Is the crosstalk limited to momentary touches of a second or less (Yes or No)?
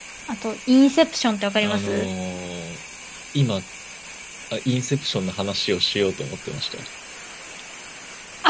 Yes